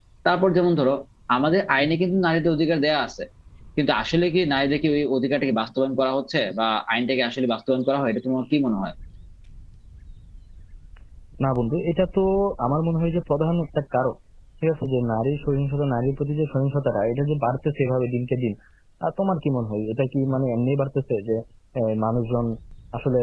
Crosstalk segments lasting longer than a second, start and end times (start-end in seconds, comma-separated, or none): none